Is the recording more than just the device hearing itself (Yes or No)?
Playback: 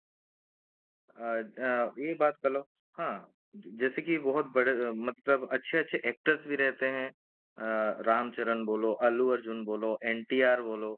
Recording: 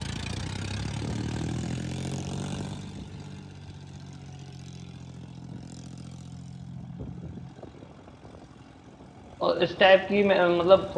Yes